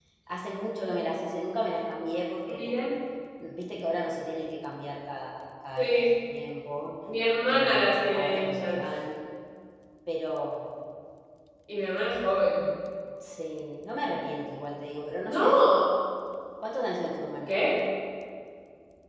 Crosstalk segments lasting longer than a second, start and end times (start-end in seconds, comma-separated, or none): 7.5-8.8